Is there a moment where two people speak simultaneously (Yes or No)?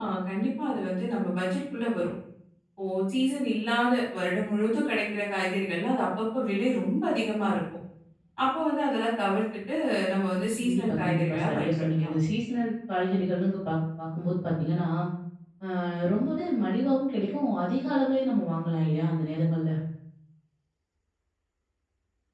Yes